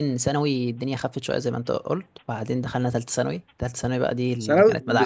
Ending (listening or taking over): taking over